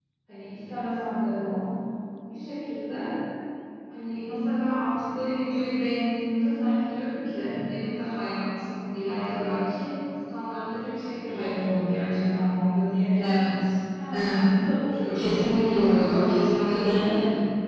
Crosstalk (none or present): present